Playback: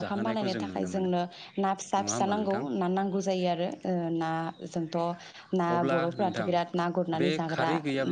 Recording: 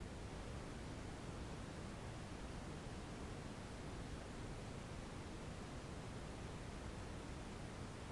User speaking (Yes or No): No